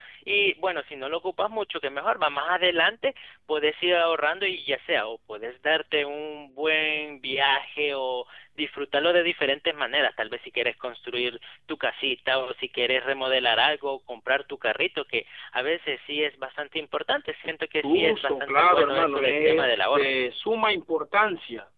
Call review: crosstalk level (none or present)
present